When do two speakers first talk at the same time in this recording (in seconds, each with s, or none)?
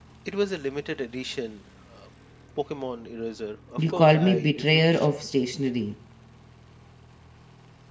3.8 s